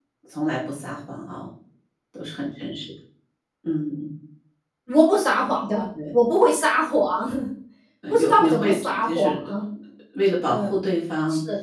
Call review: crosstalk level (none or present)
present